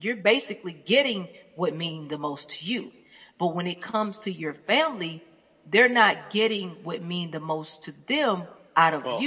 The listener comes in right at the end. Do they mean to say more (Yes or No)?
No